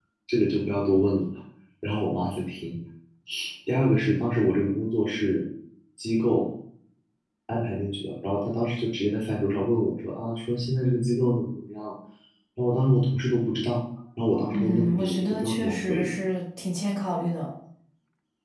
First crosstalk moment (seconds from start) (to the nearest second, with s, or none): 15 s